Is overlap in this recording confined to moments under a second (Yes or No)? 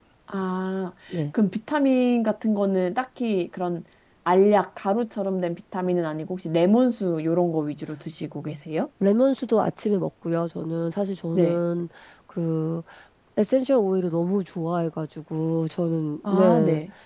Yes